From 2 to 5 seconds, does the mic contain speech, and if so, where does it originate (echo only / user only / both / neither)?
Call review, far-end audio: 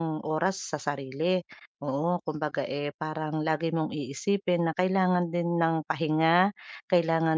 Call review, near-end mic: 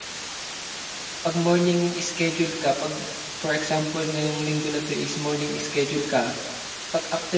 user only